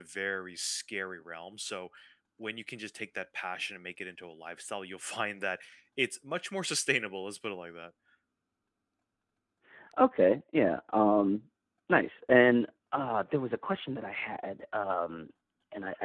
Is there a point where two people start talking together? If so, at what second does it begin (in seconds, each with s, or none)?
none